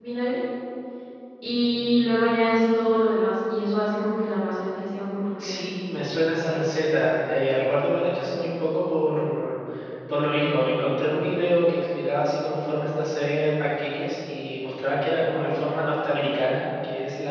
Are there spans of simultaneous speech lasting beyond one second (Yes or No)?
No